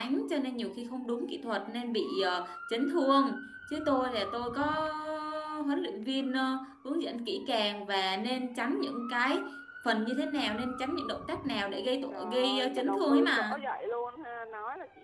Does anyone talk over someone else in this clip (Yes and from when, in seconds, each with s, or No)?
Yes, from 12.1 s